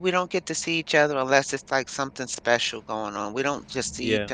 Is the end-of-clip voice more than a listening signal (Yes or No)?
No